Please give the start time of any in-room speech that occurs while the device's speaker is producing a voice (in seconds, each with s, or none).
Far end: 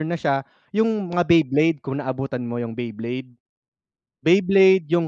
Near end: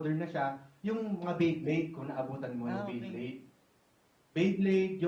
2.6 s